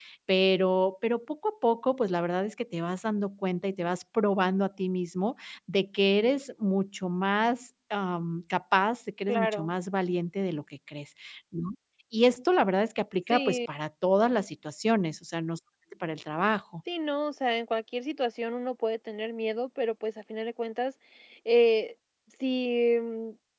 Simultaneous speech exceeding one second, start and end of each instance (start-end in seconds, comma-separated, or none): none